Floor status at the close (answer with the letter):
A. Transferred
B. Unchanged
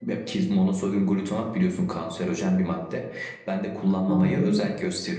B